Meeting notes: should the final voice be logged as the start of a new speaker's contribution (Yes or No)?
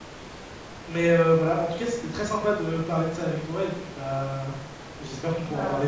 No